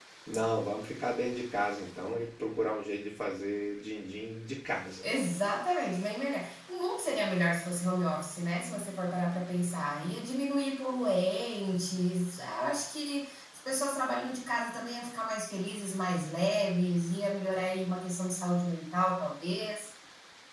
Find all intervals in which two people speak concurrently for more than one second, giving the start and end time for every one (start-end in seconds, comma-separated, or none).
none